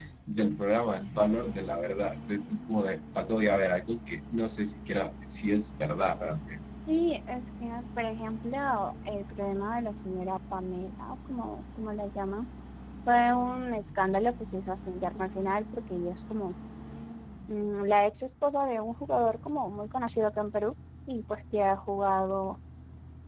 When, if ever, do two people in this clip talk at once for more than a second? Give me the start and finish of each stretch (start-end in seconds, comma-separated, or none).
none